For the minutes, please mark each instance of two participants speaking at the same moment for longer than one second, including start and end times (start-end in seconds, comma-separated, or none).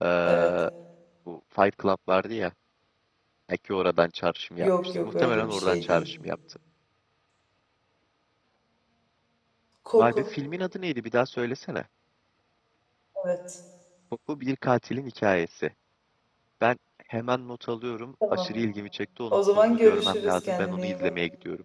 4.6-6.1, 19.3-21.1